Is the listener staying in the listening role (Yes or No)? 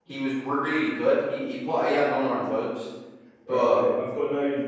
No